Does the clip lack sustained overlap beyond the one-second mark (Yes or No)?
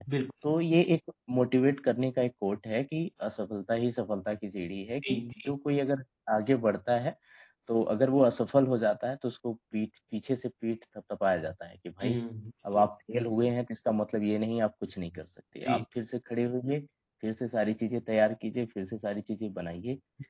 Yes